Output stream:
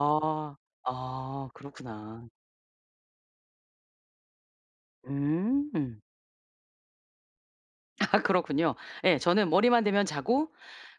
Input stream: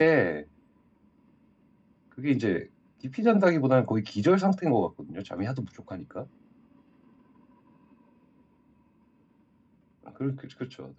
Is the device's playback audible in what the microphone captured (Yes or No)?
No